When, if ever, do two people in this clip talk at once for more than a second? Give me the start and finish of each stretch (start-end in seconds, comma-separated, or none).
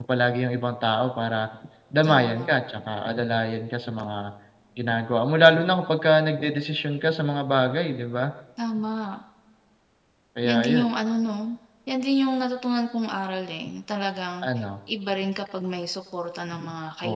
none